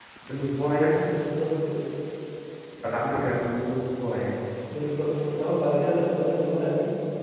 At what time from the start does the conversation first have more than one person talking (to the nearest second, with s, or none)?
none